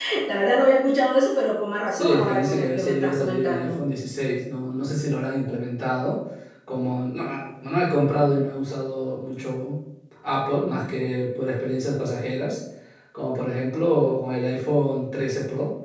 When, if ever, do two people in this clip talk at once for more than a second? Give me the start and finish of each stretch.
1.9-3.8

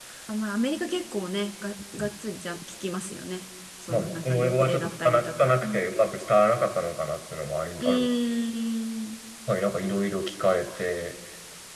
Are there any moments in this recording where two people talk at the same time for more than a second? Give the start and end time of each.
3.9-5.8

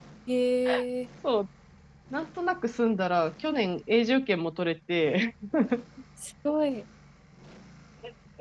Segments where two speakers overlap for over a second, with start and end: none

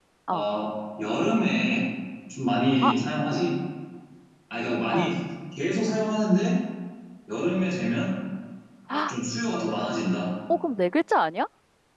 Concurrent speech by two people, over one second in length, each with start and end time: none

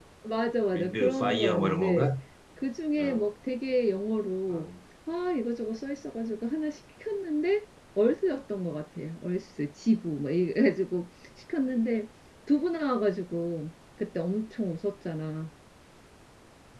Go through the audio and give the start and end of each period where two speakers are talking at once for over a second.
0.7-2.1

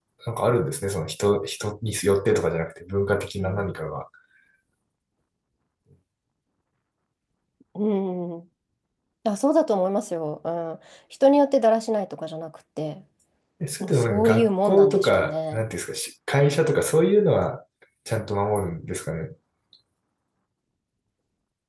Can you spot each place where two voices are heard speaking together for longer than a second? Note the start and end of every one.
13.8-15.6

